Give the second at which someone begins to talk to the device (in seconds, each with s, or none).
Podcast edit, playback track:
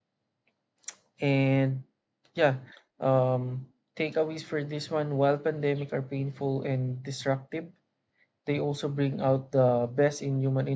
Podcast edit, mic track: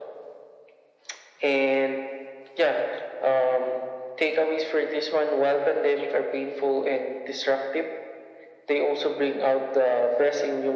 none